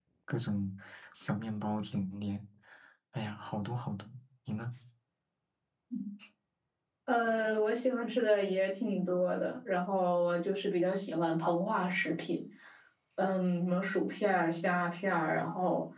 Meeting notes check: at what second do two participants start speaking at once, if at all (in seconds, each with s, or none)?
none